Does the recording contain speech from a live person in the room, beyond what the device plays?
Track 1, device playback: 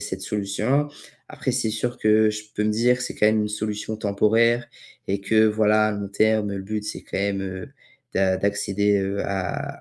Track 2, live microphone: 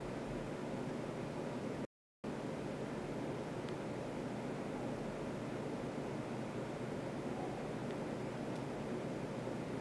No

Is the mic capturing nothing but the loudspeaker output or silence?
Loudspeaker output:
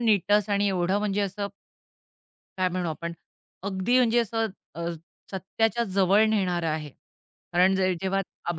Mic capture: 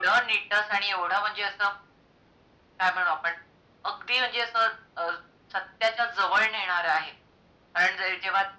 Yes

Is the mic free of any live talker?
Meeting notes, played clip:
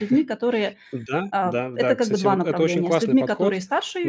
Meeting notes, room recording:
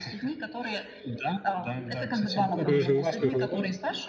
No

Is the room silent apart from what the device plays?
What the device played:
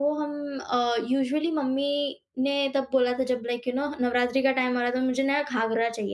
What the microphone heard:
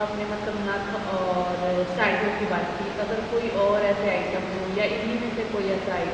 No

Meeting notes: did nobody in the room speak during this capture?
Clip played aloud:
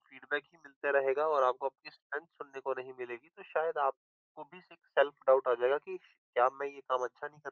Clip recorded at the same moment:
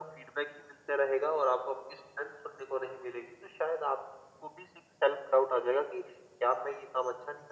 Yes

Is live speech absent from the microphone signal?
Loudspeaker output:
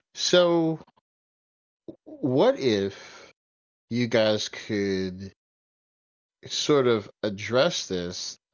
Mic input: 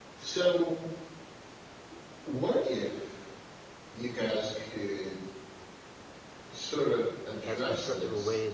No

